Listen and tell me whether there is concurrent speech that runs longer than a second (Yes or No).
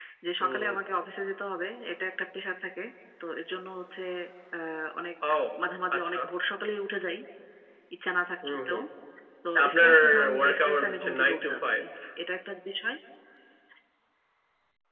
Yes